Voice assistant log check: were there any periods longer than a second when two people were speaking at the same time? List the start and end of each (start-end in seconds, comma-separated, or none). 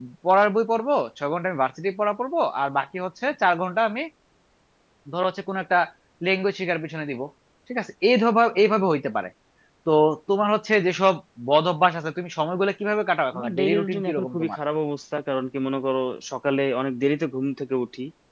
13.3-14.6